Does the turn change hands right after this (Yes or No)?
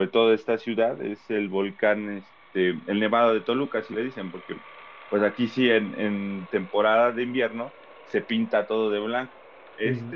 No